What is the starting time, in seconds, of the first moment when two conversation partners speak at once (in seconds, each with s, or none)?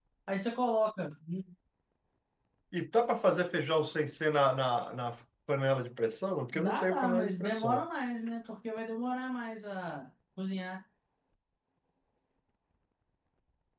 6.5 s